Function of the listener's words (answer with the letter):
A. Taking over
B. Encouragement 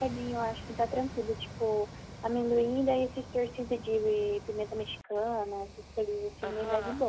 A